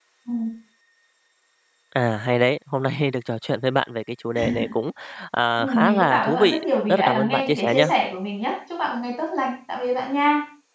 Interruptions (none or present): present